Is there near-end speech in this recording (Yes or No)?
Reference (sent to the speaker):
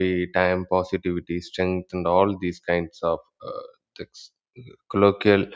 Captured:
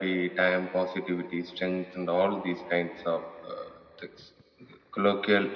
No